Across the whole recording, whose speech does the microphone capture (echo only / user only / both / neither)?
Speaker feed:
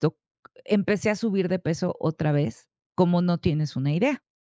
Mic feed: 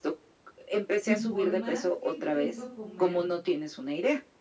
both